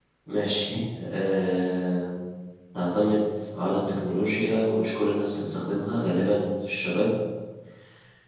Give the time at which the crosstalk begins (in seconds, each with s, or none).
none